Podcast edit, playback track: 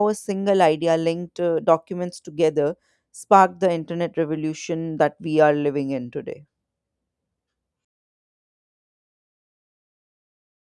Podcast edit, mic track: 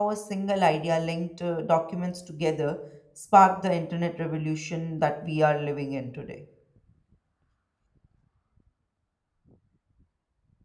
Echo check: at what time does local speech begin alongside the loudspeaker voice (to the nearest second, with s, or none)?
none